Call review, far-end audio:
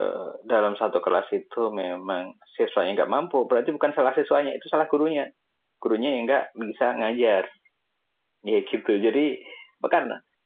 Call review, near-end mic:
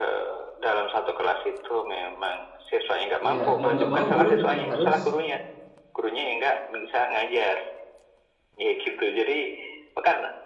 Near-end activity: present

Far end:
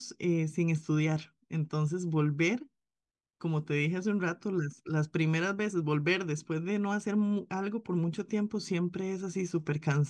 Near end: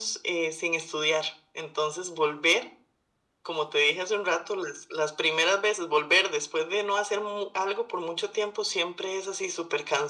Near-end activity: none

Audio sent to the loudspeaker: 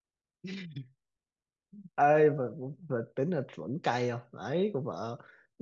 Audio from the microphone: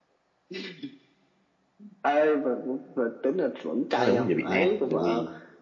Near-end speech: present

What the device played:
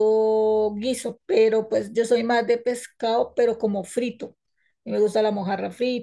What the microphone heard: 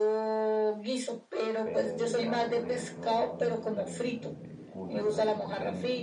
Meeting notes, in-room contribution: present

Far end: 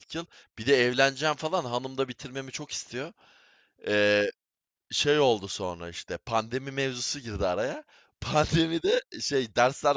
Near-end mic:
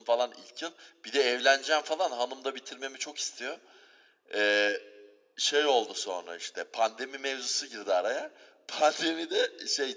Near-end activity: none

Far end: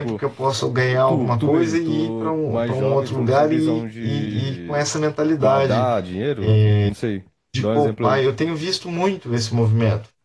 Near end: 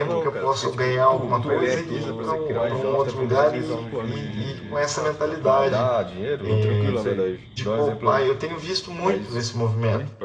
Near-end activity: present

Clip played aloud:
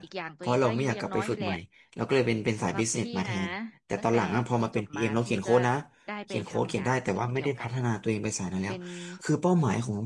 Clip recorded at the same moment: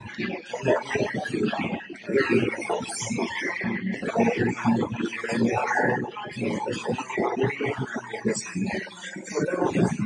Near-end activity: none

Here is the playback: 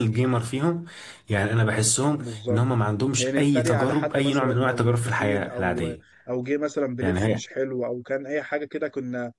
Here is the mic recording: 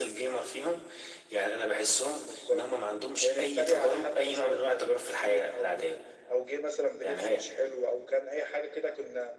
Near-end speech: none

